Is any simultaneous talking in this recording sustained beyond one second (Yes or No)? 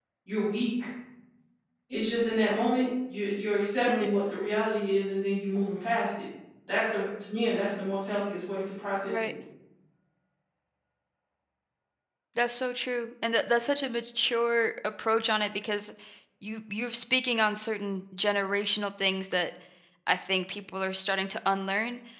No